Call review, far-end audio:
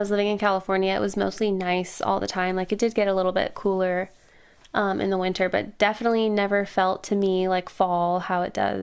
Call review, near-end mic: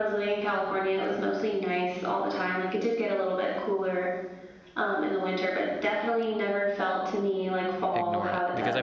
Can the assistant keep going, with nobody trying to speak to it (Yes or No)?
No